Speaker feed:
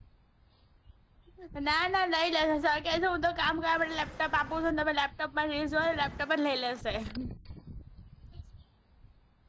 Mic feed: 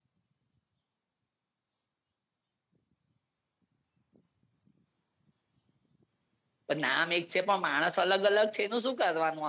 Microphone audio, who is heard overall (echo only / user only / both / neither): user only